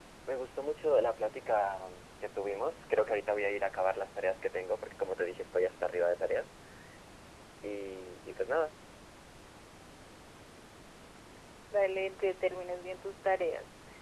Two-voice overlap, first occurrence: none

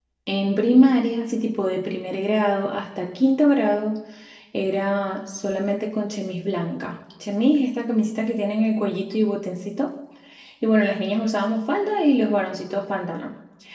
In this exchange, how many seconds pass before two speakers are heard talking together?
none

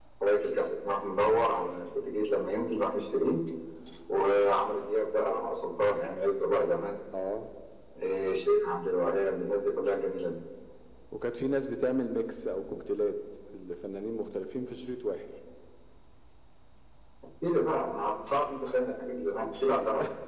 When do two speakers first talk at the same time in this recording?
none

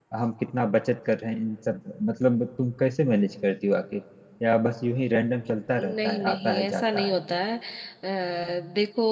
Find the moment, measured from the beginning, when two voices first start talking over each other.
5.8 s

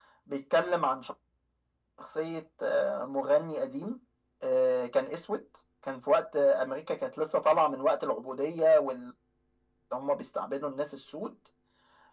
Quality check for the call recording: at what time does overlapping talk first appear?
none

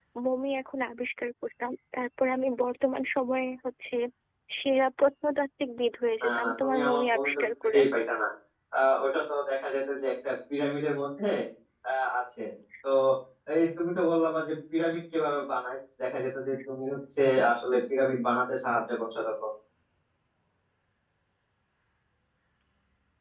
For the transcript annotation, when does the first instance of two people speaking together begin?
6.2 s

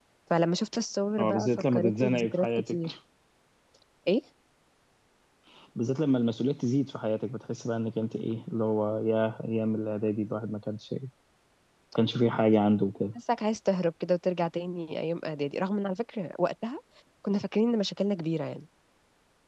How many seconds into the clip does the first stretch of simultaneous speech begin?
1.2 s

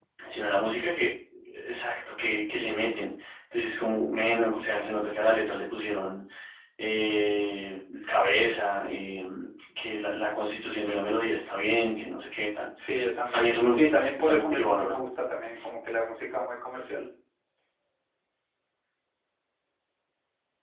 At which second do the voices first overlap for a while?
13.3 s

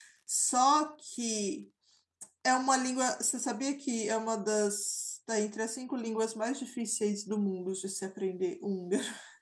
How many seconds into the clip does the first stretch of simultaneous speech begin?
none

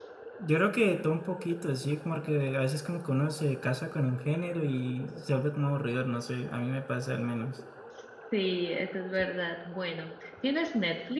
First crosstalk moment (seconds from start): none

